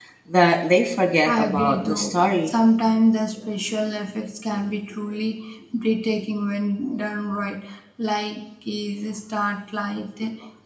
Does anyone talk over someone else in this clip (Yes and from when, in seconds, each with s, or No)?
Yes, from 1.2 s